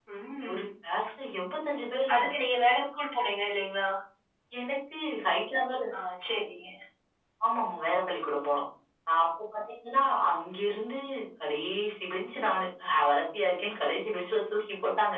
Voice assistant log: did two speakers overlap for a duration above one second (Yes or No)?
No